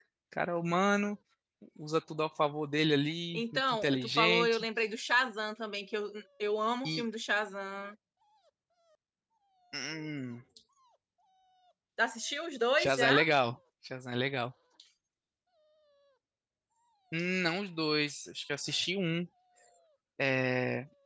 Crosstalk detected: Yes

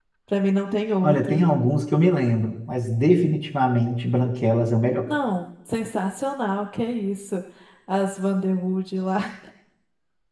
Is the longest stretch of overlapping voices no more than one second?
Yes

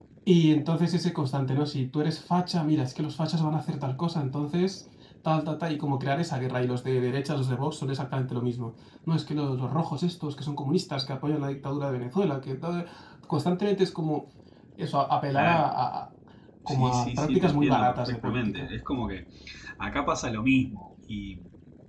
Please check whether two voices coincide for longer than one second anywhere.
Yes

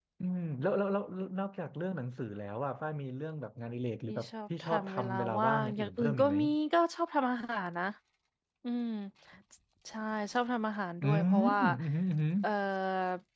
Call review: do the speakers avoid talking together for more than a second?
No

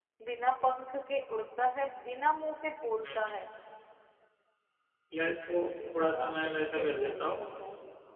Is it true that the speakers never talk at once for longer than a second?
No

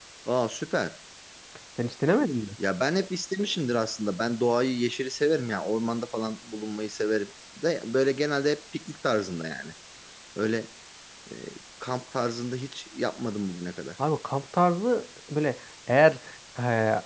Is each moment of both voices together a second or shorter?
Yes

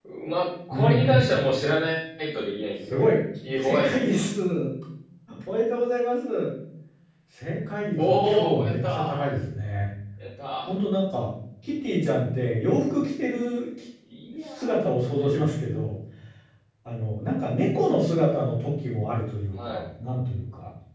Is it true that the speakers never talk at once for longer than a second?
No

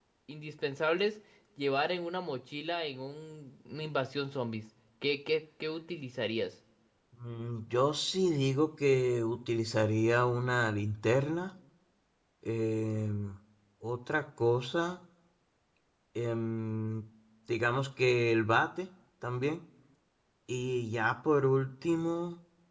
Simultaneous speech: No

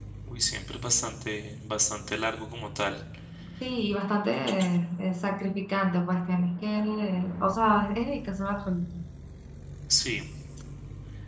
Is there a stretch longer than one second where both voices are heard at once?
No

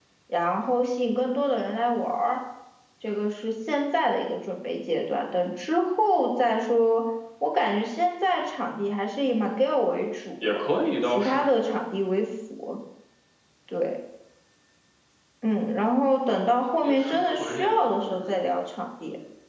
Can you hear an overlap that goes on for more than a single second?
Yes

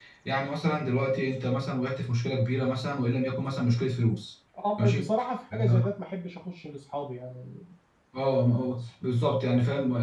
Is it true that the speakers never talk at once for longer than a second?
Yes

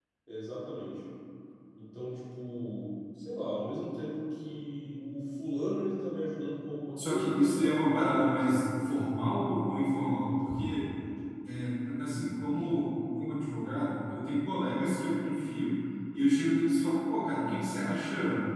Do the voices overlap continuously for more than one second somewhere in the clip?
Yes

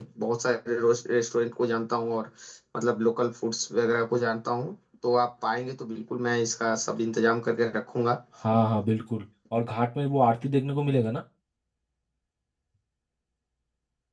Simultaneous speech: No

